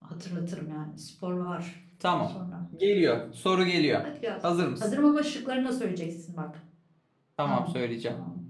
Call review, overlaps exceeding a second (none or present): none